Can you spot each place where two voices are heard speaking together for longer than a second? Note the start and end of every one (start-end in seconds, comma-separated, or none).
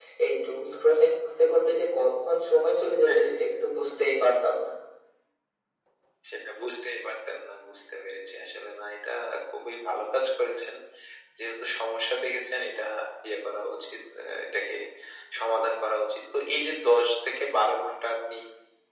none